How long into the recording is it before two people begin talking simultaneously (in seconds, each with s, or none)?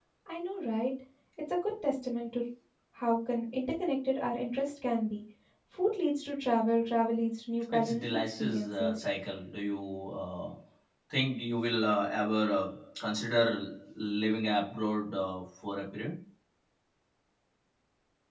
7.7 s